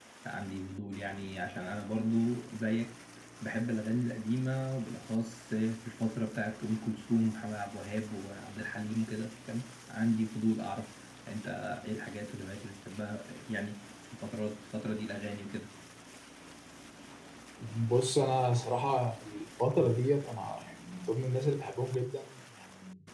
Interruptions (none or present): none